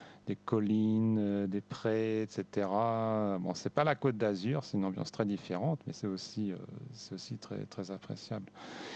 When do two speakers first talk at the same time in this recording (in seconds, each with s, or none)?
none